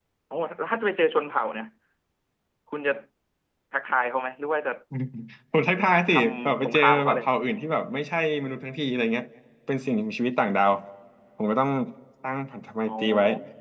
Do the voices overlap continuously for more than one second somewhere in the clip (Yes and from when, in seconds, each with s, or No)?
Yes, from 6.1 s